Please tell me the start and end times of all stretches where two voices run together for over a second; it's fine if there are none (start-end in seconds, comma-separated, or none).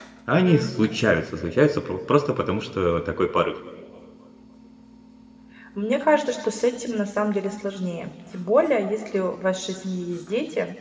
none